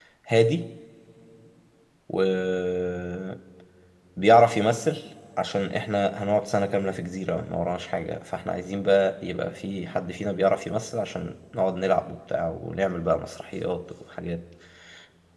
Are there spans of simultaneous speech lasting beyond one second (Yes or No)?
No